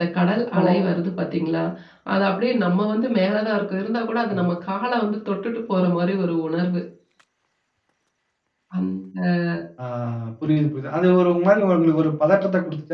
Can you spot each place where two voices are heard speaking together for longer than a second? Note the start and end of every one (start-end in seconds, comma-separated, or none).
none